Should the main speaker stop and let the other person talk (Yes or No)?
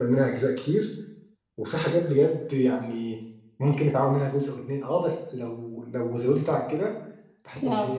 No